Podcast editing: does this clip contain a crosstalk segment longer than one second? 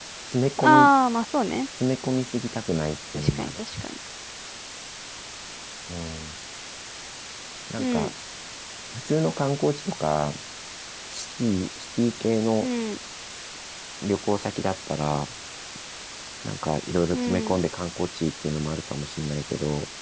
No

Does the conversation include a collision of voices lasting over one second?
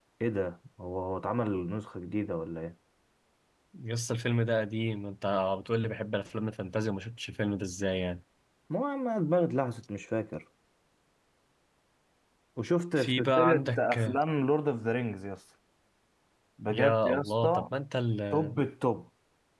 Yes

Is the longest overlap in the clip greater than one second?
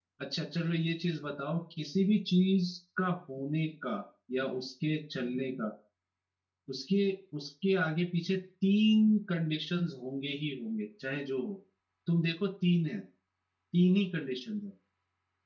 No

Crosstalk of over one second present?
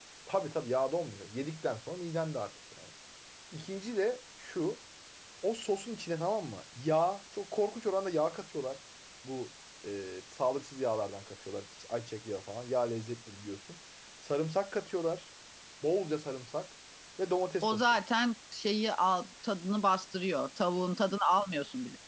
No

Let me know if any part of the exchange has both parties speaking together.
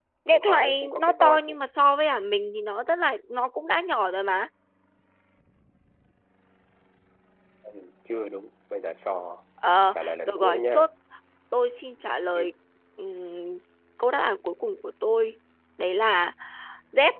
Yes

